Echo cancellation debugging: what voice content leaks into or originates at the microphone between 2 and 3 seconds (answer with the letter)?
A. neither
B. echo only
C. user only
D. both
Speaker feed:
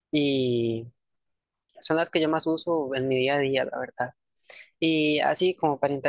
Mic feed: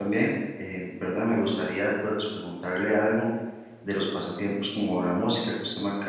C